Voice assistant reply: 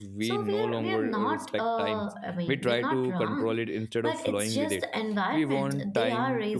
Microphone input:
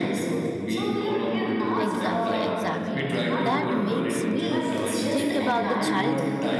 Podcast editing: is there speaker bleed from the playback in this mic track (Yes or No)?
Yes